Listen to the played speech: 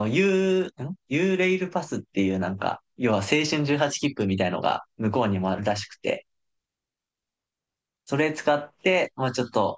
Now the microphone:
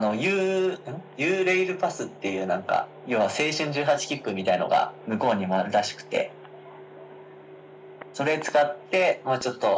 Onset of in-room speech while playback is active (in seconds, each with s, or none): none